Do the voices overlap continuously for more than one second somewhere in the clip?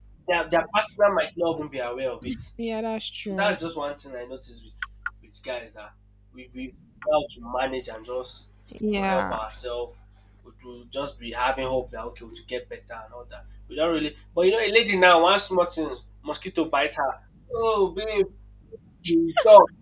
No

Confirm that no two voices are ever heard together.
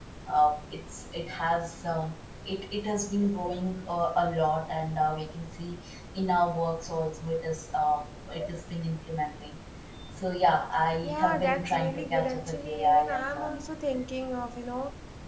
No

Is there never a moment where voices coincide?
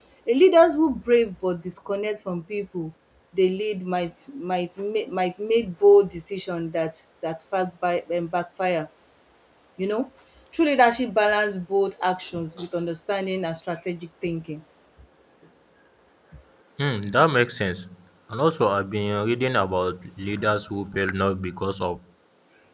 Yes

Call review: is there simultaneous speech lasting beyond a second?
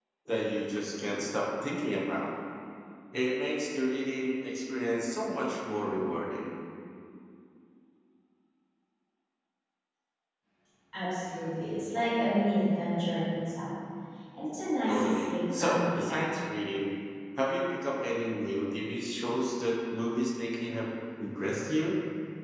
Yes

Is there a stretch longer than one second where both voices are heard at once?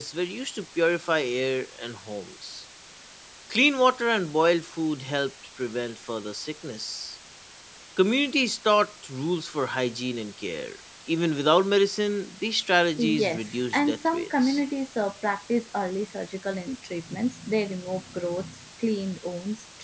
Yes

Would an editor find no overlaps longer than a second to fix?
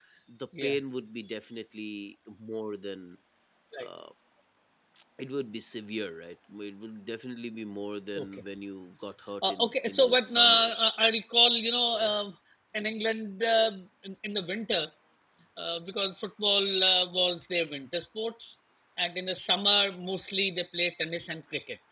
No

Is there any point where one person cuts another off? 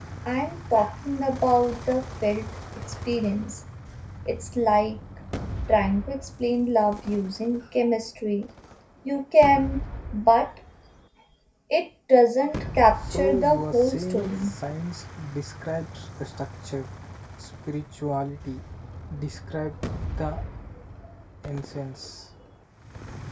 Yes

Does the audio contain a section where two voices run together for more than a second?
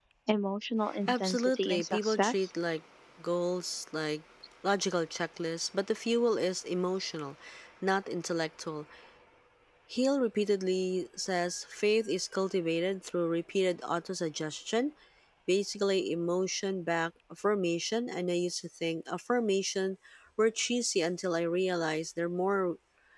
Yes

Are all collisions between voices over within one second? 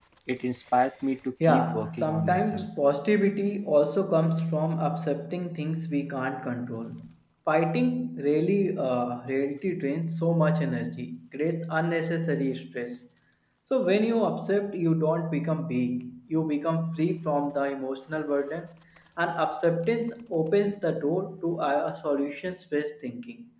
No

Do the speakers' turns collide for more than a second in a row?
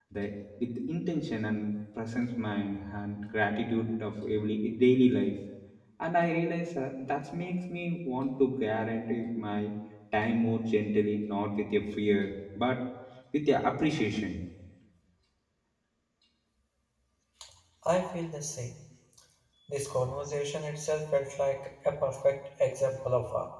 No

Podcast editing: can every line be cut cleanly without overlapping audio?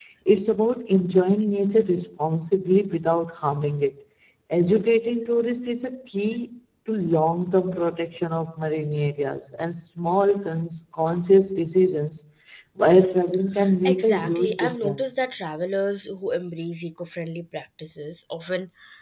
No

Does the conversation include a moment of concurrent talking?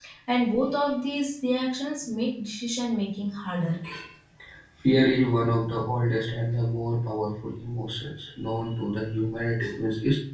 No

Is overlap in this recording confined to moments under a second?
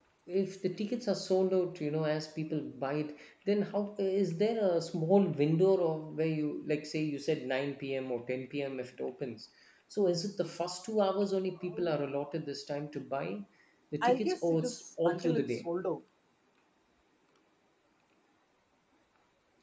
No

